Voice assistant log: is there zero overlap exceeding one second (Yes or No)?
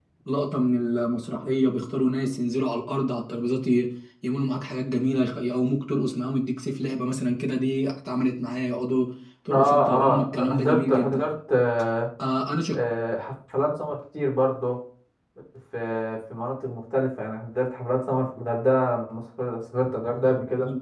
No